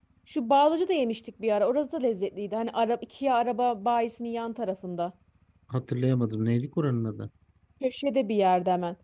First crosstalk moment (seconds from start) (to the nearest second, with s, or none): none